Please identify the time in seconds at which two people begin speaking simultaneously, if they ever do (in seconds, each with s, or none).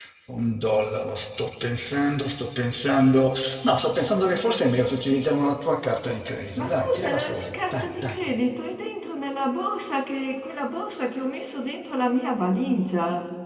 6.6 s